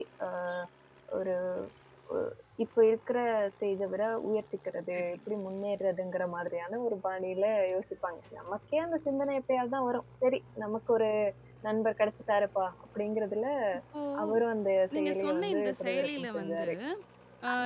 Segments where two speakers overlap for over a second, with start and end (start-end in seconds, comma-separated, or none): 15.0-16.7